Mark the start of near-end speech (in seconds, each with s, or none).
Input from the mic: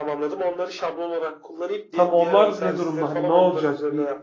1.9 s